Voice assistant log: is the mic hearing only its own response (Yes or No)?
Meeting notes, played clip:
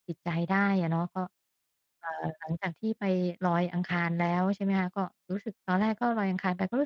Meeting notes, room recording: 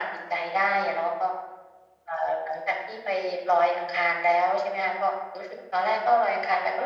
Yes